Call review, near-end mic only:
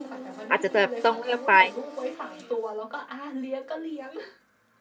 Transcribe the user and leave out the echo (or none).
อาจจะแบบต้องเลือกไป